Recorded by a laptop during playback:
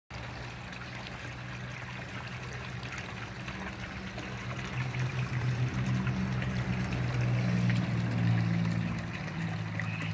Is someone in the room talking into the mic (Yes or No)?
No